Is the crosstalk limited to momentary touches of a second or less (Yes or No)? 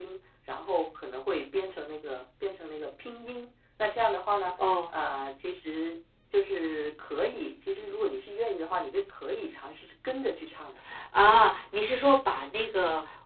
Yes